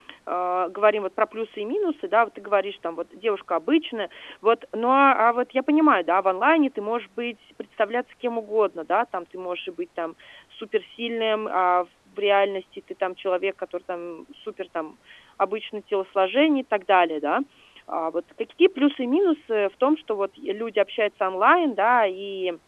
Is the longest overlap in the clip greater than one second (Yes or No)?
No